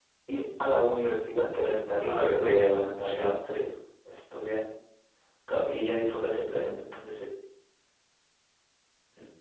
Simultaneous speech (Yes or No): Yes